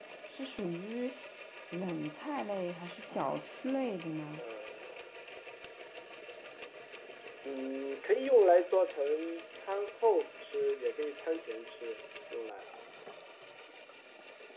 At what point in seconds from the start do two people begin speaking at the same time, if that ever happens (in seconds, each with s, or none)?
none